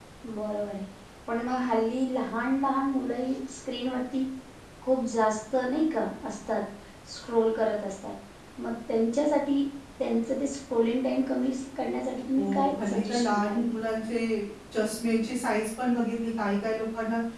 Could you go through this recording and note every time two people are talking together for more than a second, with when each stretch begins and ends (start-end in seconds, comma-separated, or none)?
12.3-13.6